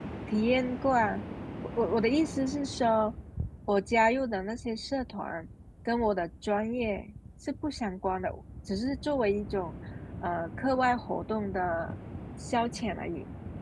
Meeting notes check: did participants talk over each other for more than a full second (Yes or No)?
No